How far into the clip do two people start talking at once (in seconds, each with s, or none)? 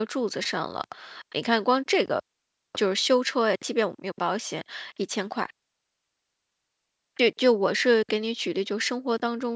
none